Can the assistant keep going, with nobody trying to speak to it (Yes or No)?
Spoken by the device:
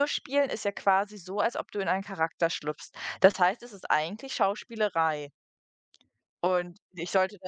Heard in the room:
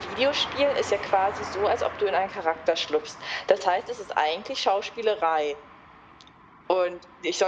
Yes